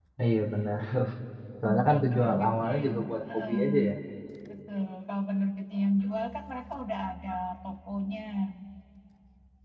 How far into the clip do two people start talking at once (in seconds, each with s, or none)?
1.6 s